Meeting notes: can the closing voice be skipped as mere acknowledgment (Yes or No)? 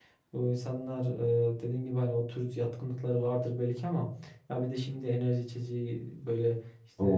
Yes